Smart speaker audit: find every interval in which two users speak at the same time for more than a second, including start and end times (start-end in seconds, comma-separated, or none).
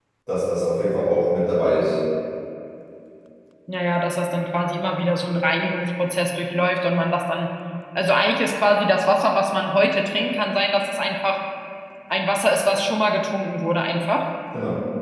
none